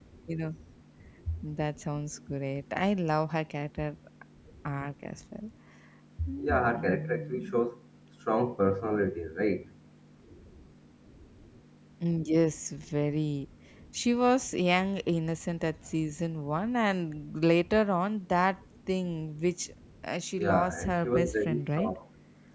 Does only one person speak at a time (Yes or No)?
No